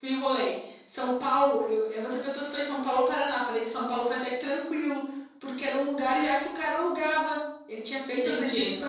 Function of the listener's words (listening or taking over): listening